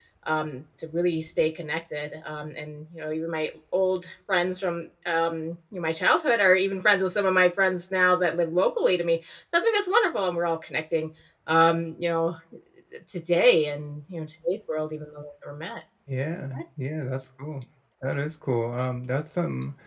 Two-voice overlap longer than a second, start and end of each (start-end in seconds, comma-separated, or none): none